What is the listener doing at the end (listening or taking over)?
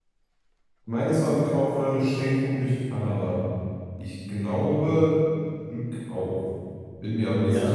taking over